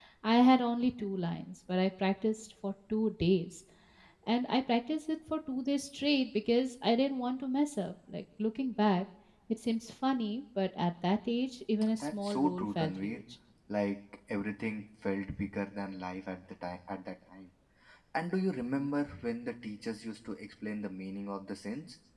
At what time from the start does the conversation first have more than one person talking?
11.8 s

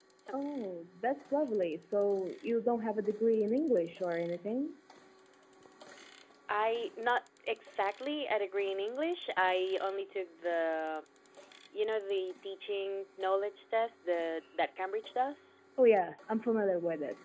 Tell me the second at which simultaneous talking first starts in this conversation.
none

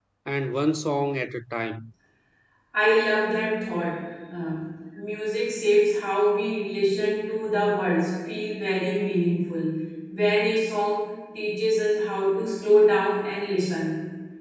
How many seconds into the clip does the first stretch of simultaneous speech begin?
none

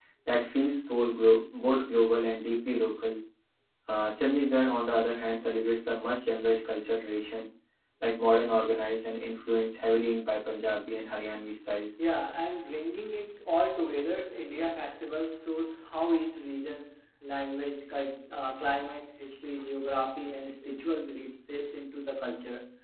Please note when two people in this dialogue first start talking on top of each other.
none

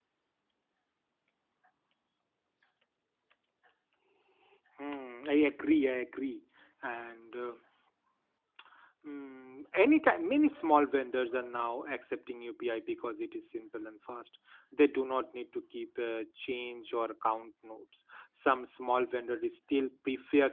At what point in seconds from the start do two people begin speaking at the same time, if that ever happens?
none

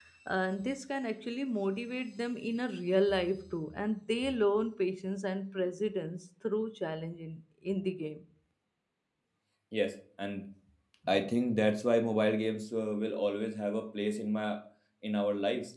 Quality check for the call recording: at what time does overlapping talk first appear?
none

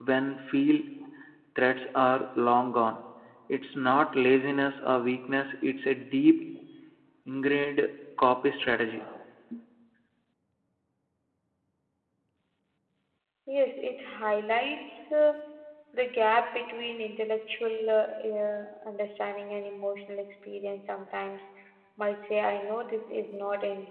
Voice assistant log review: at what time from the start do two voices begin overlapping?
none

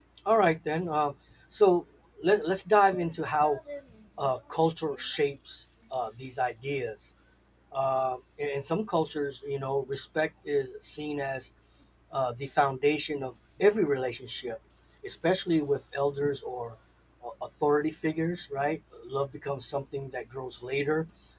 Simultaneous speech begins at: none

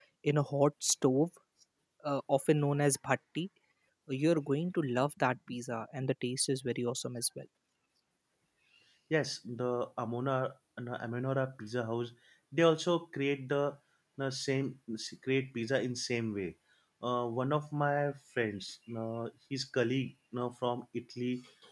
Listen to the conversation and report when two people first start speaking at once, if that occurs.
none

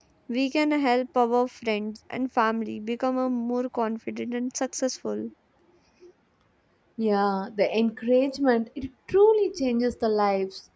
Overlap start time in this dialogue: none

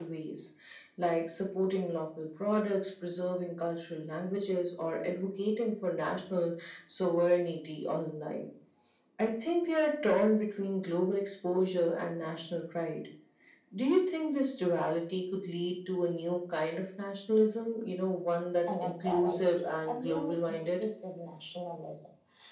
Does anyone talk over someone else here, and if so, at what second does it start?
18.7 s

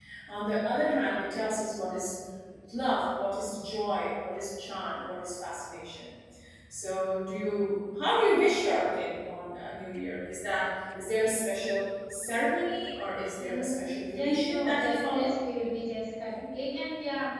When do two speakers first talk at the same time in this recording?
13.4 s

